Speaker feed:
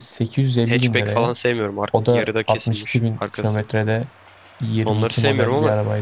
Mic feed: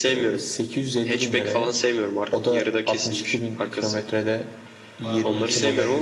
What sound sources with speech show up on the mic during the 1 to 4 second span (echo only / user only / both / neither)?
echo only